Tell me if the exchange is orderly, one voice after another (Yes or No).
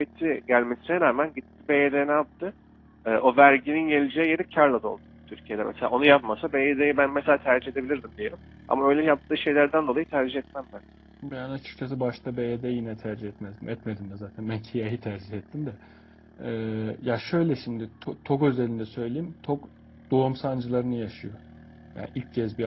Yes